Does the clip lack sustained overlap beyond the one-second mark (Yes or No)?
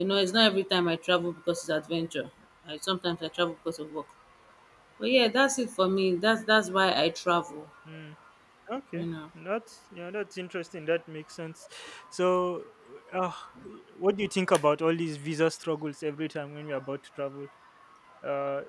Yes